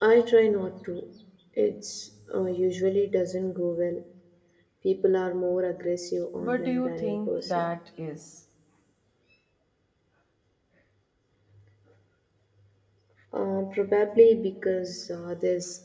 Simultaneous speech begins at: 6.4 s

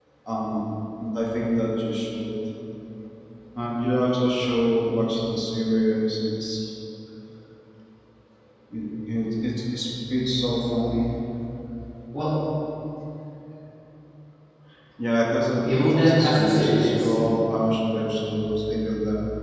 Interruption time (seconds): 15.6 s

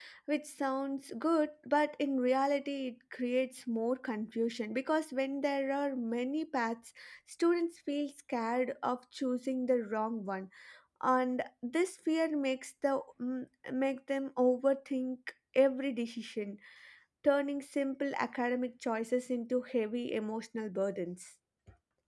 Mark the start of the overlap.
none

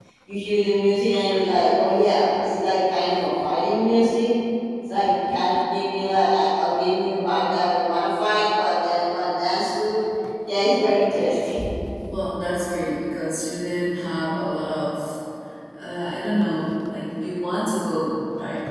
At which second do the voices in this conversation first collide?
none

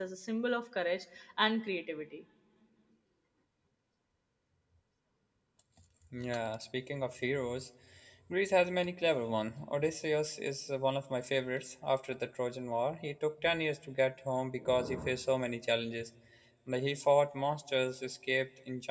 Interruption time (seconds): none

